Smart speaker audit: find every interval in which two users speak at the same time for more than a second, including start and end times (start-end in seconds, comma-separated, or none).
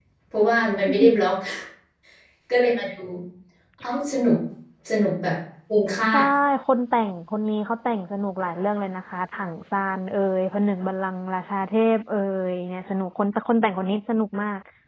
none